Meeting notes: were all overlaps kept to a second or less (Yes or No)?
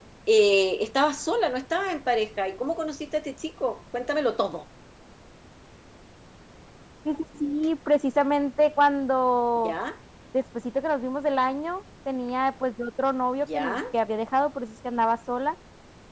Yes